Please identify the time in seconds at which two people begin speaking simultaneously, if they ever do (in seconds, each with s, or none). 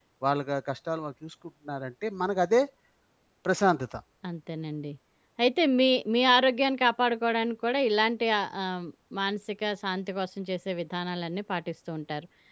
none